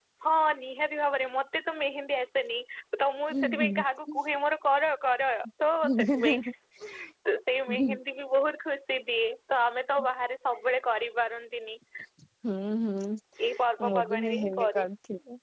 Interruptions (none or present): present